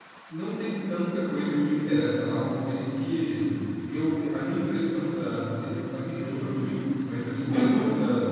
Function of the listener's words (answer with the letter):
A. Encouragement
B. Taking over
A